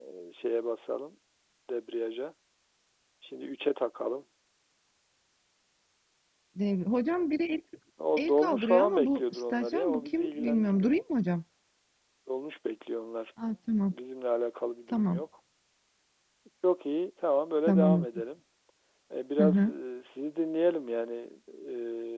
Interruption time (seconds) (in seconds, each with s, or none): 8.2 s